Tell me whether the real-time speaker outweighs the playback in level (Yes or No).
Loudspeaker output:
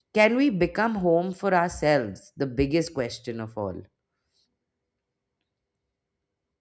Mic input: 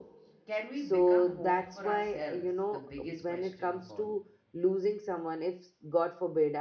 Yes